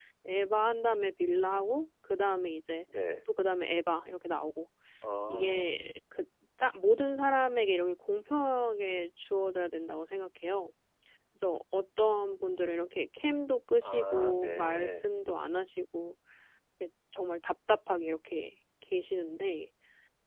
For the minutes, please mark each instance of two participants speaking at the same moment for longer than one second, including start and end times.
13.8-15.0

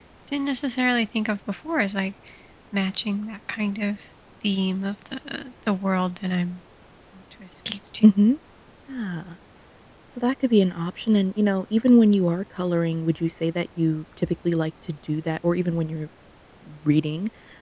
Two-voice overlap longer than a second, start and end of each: none

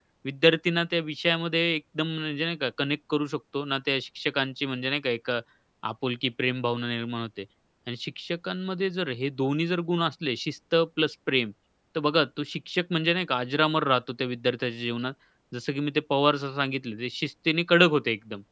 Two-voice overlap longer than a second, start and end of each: none

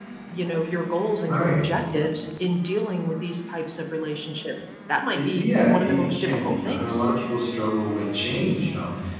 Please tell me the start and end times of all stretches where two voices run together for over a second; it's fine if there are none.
5.1-7.0

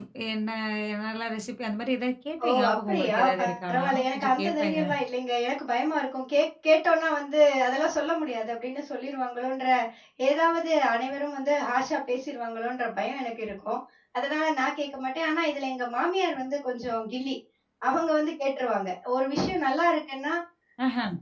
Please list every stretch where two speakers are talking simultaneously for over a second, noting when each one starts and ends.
2.5-4.8

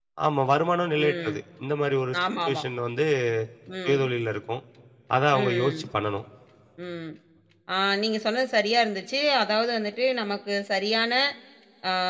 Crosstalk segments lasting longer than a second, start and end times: none

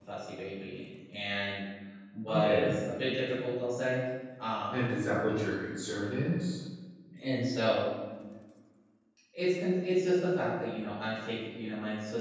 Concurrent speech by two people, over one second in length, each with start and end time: none

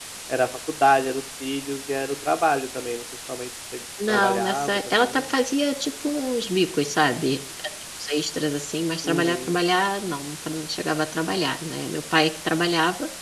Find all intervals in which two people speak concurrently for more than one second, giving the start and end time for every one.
4.1-5.3

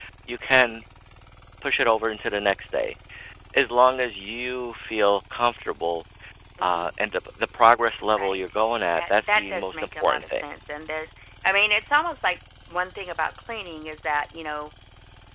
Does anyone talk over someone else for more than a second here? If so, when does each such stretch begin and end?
9.0-10.4

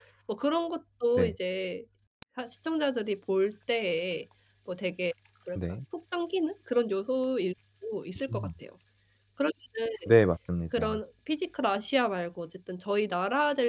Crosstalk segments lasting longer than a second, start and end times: none

